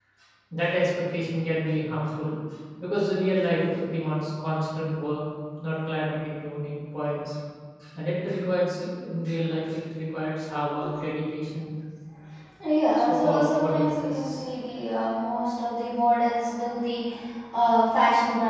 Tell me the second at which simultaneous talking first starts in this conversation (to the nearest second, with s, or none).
13 s